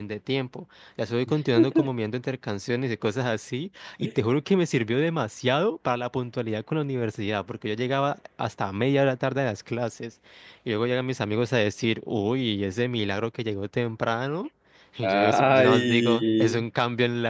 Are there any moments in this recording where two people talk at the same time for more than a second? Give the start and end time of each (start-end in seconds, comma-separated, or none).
15.0-16.6